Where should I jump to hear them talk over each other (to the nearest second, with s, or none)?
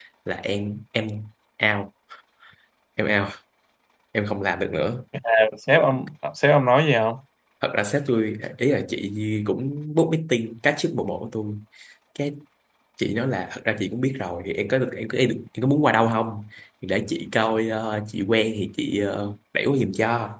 none